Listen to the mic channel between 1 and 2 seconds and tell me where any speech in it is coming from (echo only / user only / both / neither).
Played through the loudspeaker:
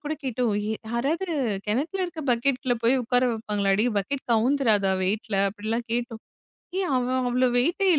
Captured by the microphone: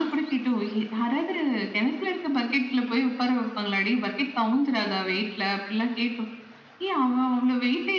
echo only